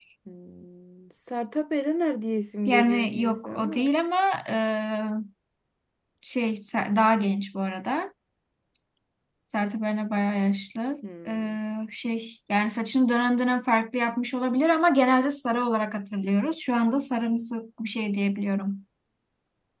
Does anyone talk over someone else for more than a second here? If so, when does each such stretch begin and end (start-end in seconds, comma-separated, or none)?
2.7-3.9